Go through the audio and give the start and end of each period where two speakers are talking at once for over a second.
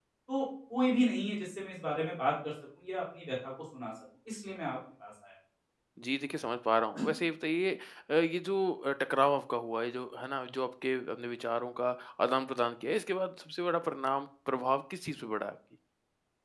none

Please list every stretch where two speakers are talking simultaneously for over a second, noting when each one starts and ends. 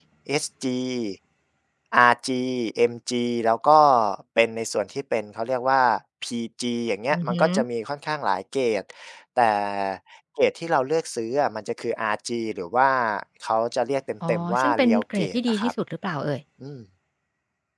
14.3-15.7

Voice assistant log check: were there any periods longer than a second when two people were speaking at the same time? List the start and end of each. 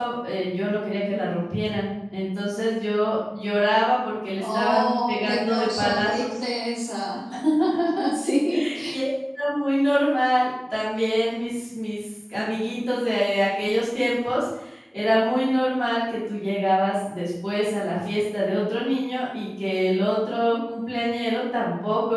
4.4-6.3

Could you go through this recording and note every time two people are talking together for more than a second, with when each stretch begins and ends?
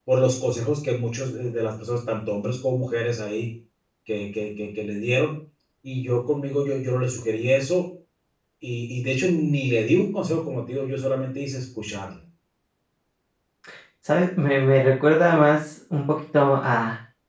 none

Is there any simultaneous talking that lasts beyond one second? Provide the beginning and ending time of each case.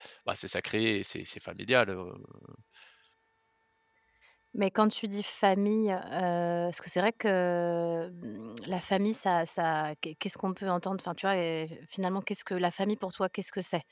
none

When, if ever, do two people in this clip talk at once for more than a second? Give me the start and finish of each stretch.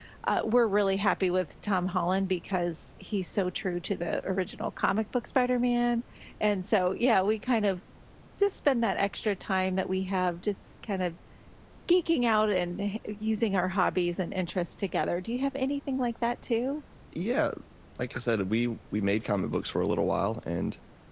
none

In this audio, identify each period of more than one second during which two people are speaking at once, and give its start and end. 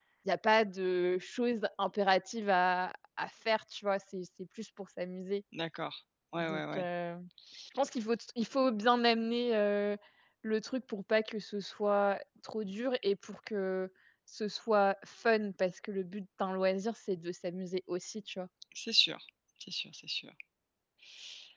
none

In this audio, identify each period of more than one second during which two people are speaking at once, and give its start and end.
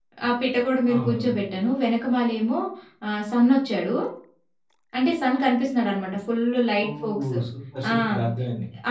none

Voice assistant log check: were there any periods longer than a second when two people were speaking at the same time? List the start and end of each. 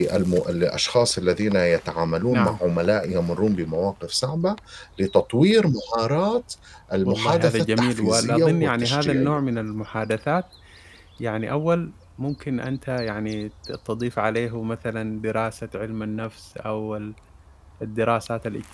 7.0-9.4

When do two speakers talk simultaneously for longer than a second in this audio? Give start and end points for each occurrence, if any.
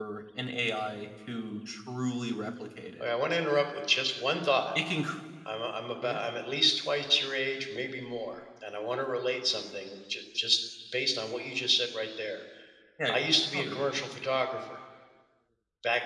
none

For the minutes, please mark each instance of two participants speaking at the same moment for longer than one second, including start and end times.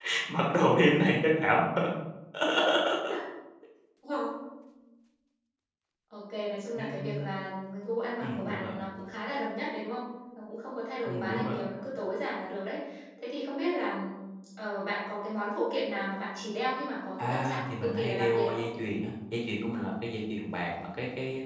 17.2-18.6

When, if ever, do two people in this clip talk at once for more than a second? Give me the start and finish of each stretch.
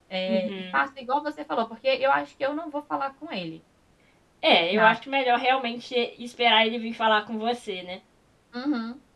none

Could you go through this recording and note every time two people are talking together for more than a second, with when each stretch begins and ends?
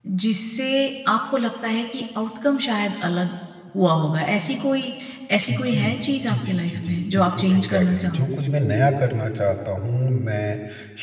6.2-8.2

